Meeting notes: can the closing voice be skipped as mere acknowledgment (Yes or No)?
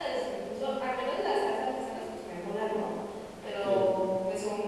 Yes